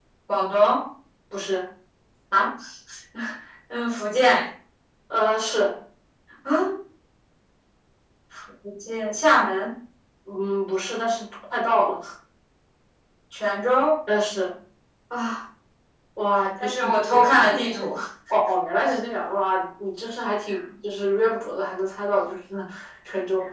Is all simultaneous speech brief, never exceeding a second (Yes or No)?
No